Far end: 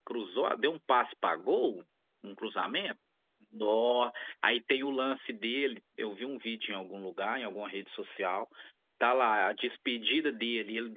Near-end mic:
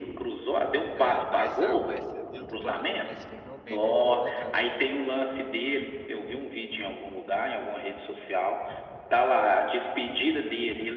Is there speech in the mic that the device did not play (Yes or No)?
Yes